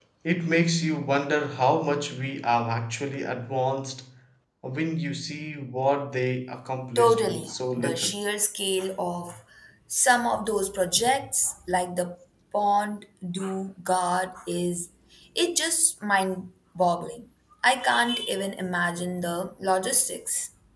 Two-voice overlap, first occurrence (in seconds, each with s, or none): 7.0 s